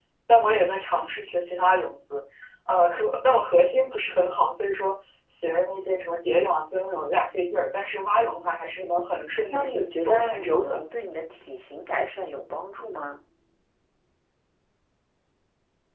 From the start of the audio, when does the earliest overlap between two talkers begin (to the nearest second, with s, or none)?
10 s